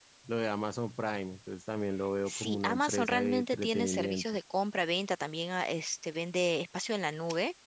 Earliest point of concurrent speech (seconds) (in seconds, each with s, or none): 2.3 s